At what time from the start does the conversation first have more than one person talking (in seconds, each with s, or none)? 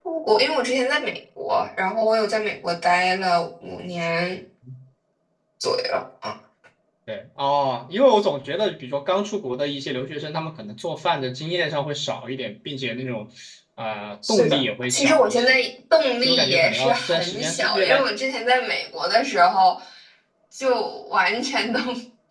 14.3 s